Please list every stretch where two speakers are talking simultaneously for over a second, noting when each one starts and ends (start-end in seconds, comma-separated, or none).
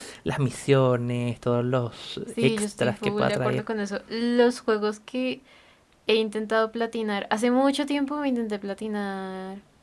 2.3-3.6